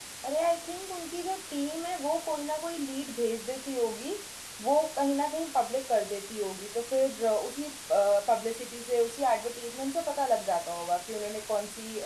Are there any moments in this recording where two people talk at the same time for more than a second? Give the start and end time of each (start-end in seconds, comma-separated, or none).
none